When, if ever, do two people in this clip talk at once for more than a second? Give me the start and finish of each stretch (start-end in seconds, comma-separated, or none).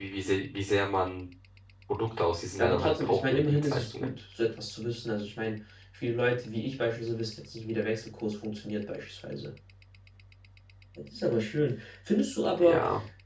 2.6-4.1